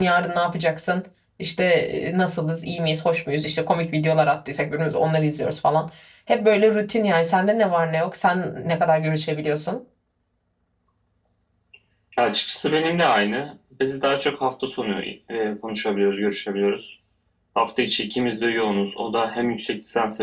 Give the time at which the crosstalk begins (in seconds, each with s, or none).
none